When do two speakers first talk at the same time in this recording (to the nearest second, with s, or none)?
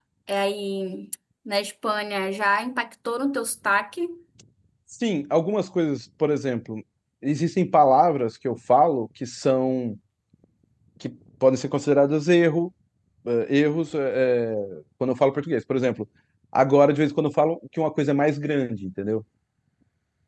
none